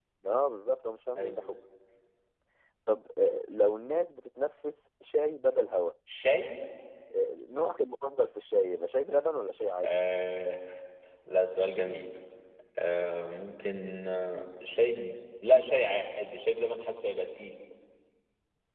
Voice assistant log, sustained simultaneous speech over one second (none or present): none